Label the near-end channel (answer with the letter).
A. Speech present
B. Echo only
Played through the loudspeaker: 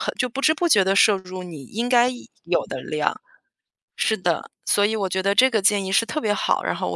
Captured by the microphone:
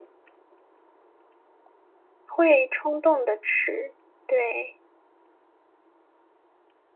A